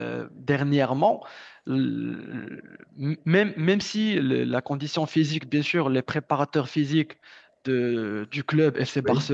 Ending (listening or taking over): listening